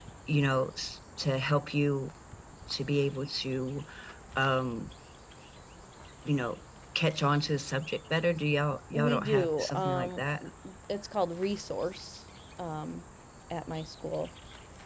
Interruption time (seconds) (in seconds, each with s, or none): 8.9 s